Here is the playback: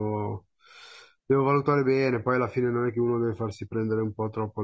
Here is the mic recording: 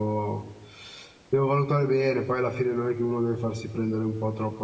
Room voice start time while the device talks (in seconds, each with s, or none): none